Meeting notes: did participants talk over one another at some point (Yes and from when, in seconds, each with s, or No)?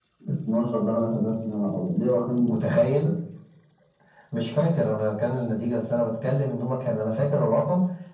No